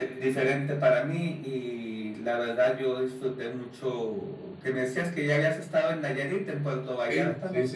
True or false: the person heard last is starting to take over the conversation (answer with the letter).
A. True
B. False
A